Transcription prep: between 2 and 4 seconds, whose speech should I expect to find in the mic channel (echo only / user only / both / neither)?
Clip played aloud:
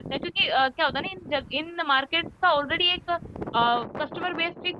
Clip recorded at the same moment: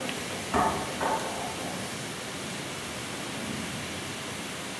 neither